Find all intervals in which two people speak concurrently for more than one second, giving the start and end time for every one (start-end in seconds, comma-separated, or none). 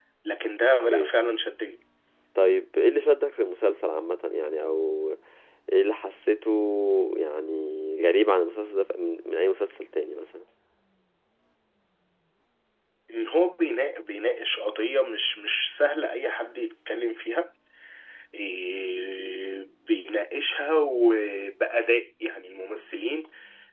none